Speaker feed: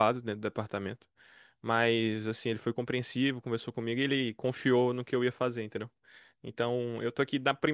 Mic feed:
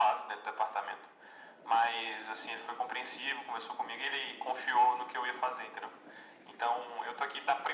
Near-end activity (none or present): none